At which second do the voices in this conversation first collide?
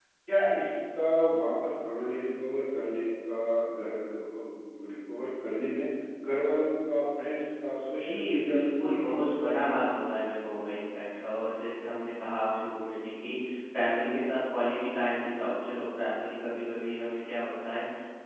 8 s

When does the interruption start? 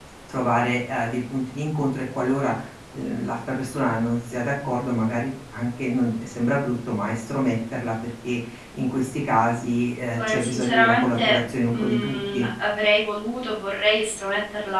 10 s

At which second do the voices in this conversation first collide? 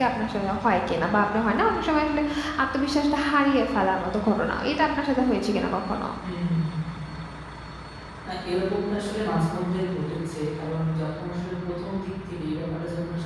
none

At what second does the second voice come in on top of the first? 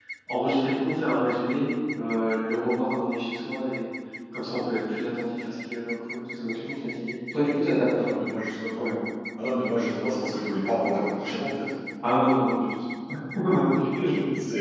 none

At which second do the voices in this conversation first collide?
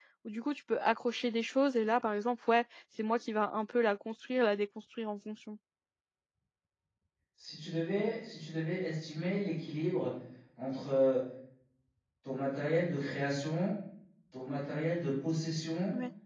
none

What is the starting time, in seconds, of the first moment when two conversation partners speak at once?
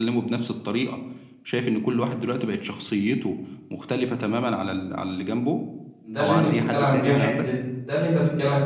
6 s

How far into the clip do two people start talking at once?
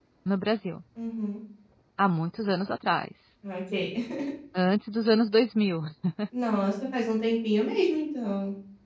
none

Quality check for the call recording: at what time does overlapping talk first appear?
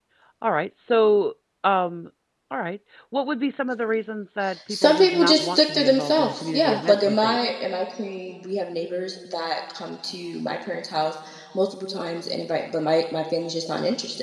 5 s

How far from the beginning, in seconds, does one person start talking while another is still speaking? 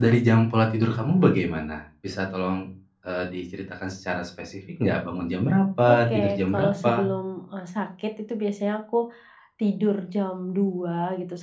6 s

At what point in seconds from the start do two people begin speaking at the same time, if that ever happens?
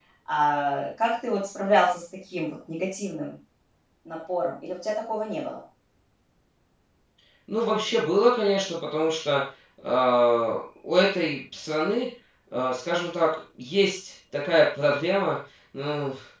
none

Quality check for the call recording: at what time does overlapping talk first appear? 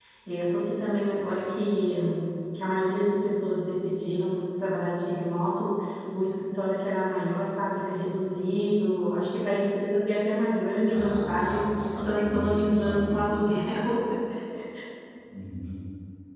11 s

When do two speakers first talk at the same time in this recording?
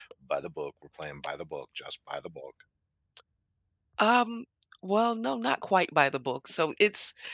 none

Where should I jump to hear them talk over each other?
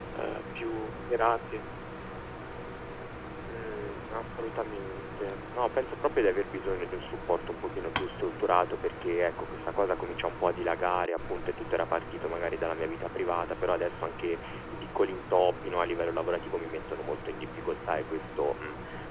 none

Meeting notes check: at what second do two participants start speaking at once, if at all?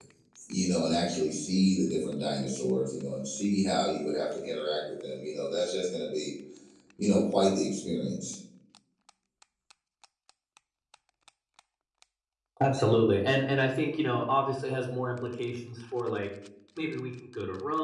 none

